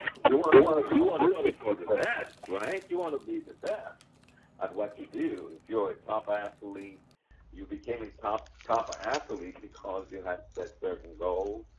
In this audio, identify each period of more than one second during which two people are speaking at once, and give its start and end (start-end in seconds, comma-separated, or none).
0.5-2.0